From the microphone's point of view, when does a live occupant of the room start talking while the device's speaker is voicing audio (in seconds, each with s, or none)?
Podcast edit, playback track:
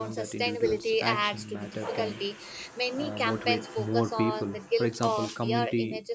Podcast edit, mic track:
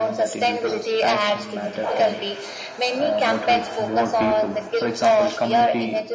none